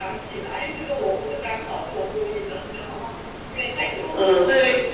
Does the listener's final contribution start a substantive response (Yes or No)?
Yes